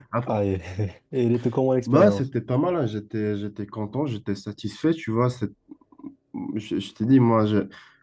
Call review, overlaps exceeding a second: none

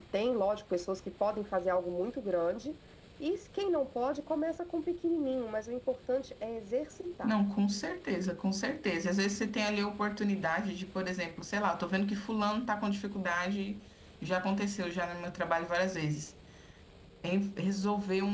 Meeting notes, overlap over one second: none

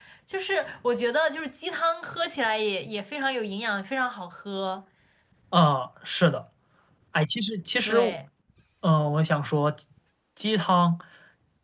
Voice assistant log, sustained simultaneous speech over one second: none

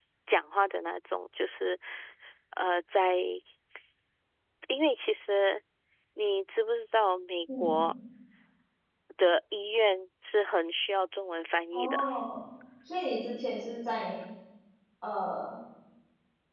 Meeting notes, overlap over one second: none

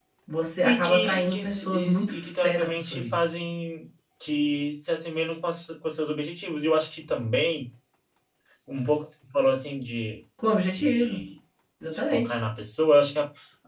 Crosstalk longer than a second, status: present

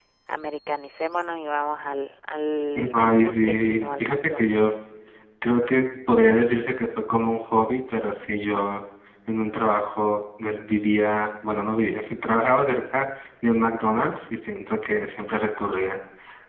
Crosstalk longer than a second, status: present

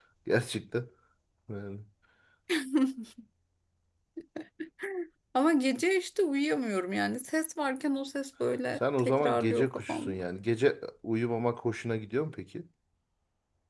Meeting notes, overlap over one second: present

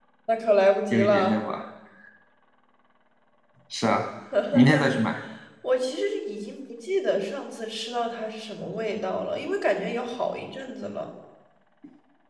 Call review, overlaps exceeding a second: none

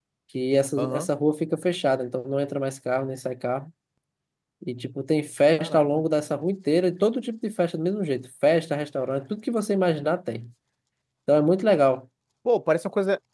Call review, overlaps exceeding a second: none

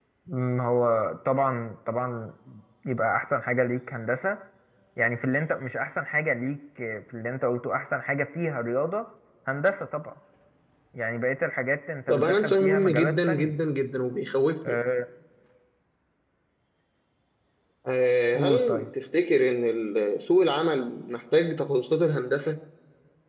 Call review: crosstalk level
present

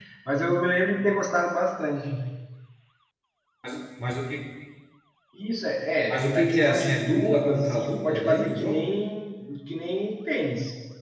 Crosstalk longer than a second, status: present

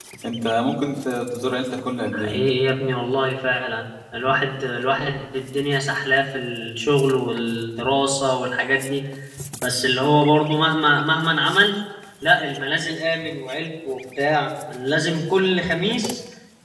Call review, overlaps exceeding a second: none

